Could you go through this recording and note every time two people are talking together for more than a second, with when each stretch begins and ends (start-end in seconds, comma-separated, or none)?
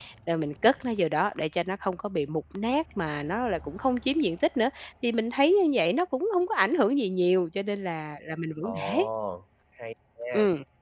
none